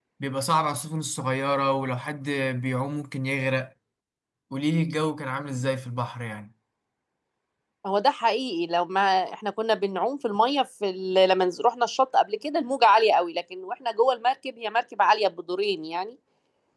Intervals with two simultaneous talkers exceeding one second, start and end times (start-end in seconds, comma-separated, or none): none